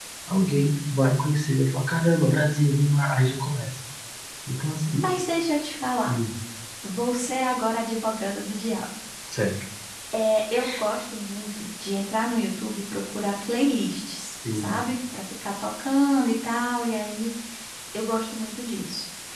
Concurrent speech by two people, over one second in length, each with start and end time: none

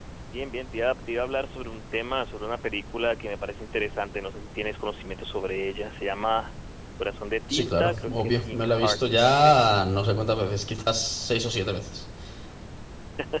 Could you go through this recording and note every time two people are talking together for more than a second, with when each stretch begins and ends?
7.5-9.7

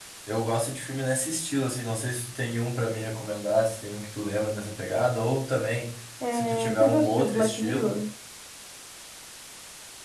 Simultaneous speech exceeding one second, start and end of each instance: 6.3-8.0

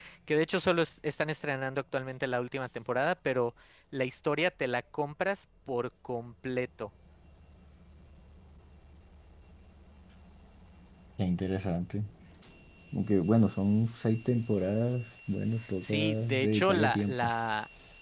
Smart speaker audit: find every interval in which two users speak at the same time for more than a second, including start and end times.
15.8-17.3

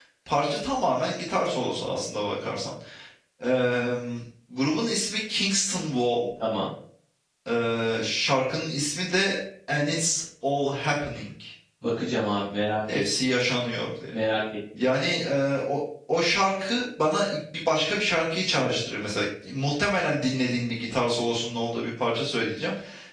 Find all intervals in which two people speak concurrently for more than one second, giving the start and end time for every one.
none

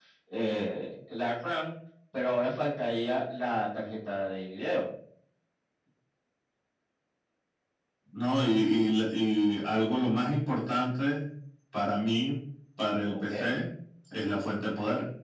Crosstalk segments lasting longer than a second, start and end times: none

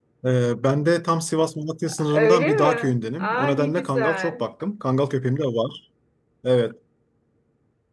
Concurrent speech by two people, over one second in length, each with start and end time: 2.1-4.4

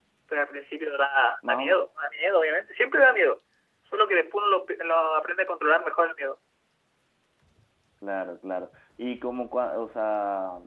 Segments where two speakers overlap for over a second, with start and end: none

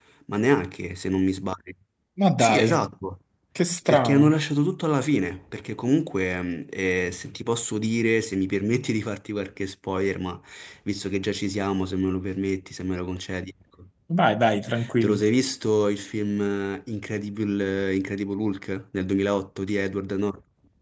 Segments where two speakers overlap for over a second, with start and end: none

